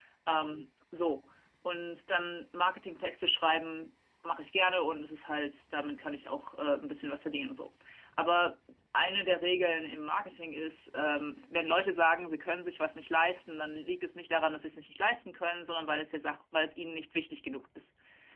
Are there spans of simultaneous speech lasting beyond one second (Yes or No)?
No